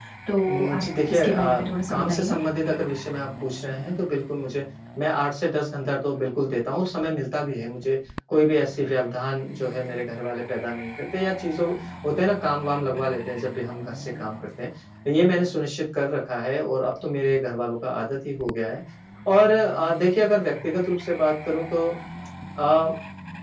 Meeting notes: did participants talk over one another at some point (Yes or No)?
Yes